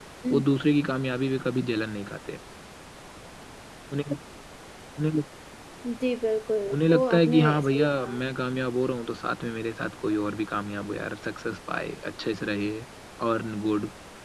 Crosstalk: present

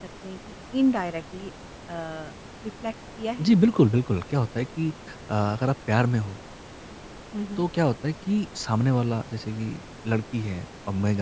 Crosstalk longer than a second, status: none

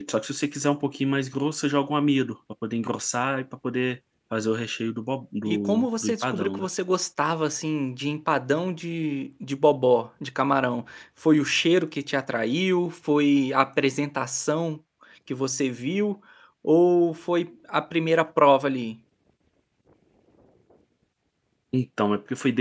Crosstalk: present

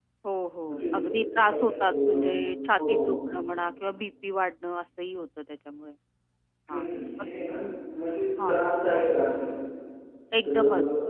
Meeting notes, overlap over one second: present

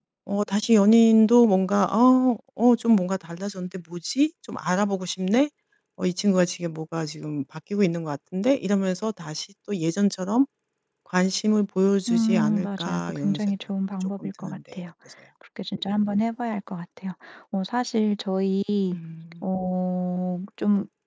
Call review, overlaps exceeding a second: present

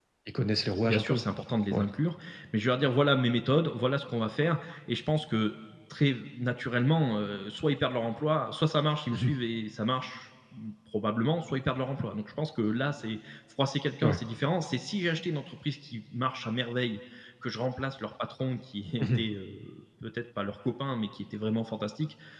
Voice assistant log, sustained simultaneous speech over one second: none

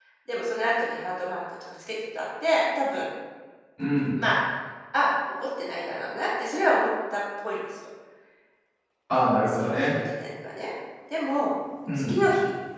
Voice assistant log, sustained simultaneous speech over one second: none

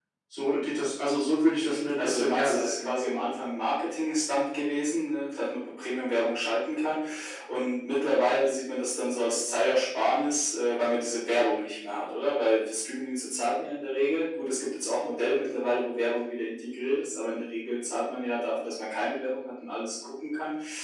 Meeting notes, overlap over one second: present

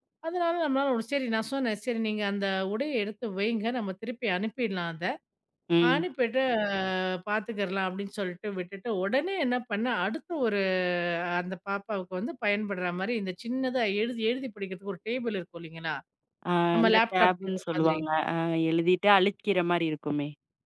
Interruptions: present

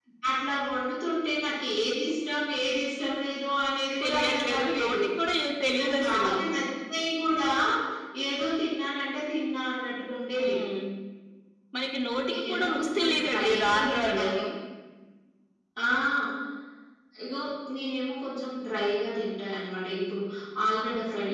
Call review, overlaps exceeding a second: present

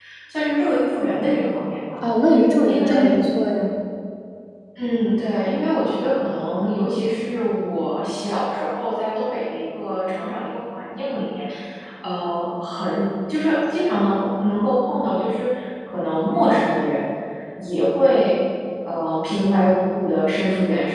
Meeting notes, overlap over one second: none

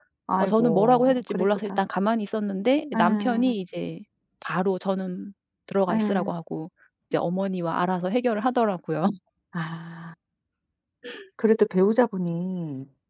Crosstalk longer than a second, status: present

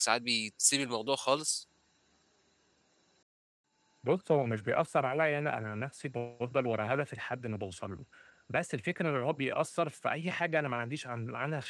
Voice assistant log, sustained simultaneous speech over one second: none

